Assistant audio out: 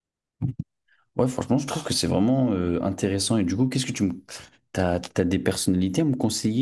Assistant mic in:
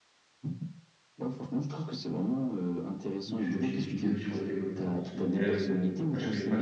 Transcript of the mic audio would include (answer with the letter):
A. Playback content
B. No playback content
A